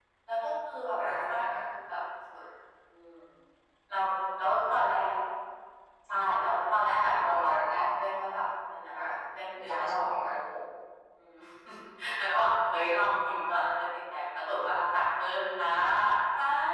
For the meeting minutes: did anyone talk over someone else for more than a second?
Yes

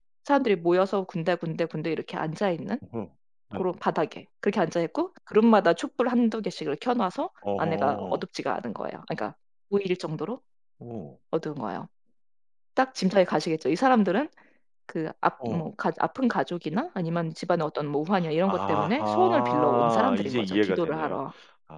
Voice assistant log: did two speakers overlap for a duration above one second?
Yes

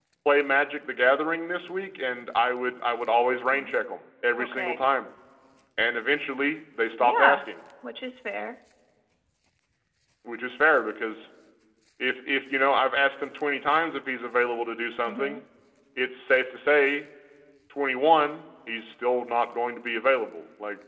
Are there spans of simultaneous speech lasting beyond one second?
No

